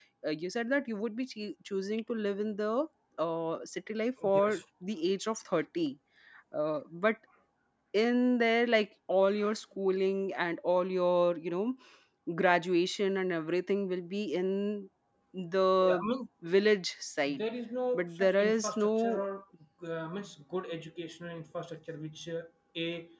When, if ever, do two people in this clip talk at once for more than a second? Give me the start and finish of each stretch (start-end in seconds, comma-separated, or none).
17.9-19.2